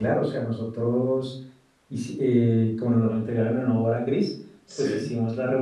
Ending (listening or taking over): listening